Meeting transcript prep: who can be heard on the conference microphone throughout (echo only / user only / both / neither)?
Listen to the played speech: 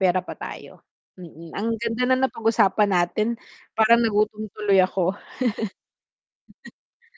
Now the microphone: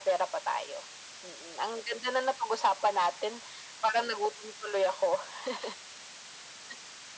echo only